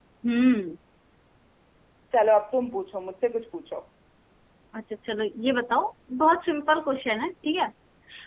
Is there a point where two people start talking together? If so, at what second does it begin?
none

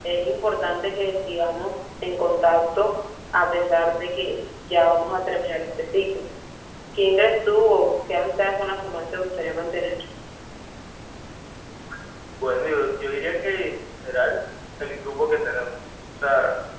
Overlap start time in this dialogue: none

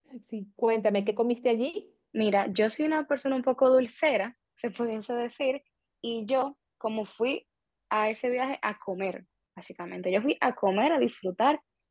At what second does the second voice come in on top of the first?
none

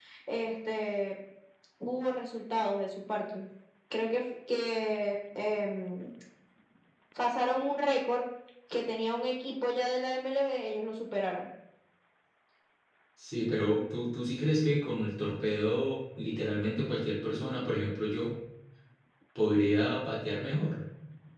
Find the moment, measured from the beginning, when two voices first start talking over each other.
none

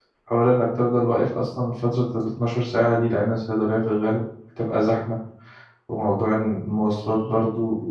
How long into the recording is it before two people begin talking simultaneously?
none

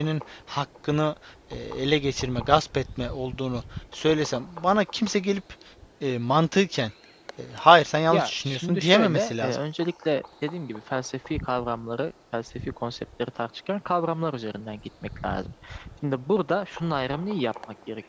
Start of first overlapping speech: 8 s

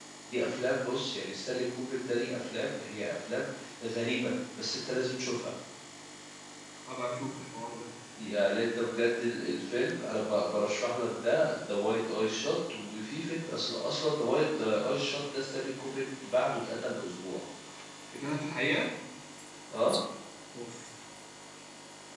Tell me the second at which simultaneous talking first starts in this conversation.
none

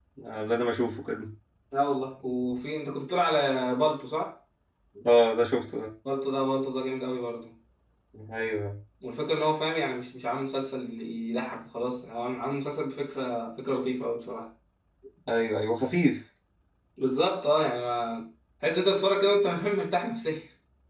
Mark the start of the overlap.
none

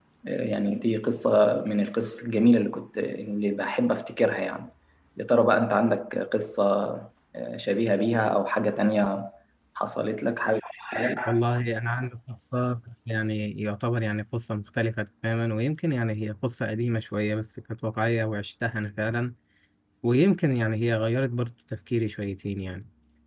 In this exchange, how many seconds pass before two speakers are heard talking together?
none

